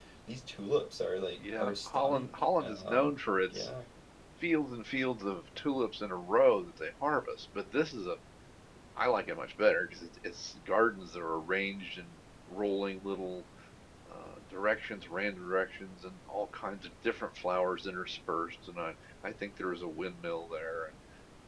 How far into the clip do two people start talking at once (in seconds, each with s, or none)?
1.4 s